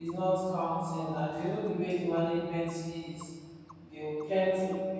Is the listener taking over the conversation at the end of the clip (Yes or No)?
No